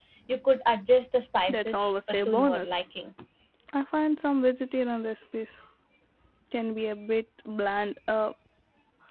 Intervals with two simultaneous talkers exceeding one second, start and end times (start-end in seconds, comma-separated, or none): 1.5-2.8